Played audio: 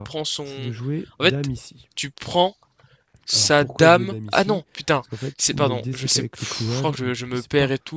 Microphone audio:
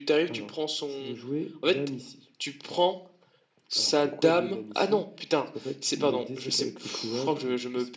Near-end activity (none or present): none